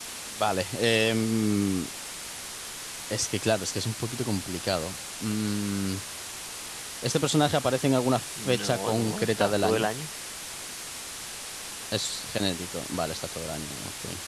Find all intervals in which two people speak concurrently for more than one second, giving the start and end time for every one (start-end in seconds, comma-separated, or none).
8.4-9.9